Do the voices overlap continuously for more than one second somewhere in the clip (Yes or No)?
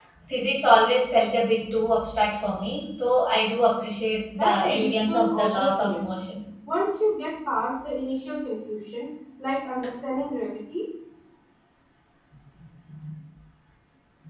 Yes